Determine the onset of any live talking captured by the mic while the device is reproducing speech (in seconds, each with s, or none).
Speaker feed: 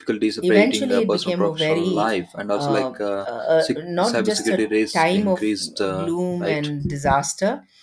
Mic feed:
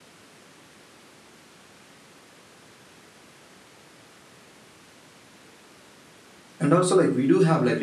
6.6 s